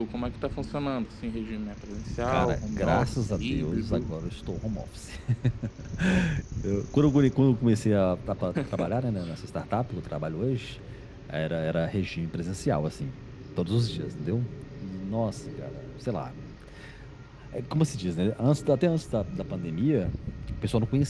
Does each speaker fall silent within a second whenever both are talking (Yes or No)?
No